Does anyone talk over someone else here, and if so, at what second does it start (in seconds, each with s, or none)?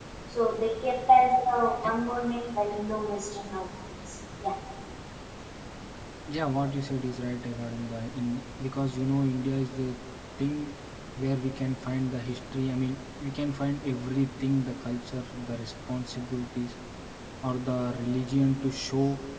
none